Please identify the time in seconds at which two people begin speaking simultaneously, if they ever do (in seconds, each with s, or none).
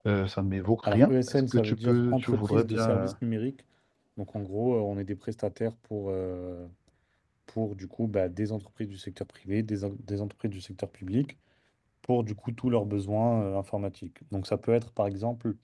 0.8 s